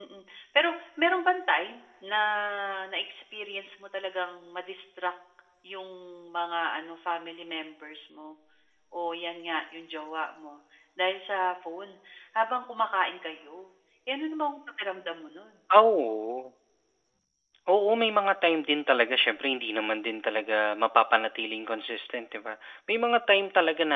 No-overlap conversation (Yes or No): Yes